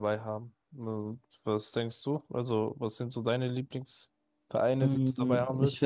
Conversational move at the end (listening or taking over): taking over